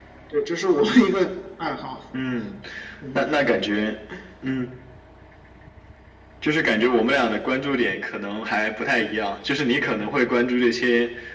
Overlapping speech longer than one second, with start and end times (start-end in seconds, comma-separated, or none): none